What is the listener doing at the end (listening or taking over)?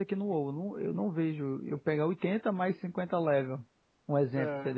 taking over